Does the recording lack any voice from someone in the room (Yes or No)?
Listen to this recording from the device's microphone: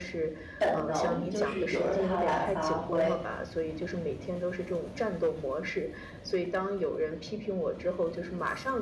No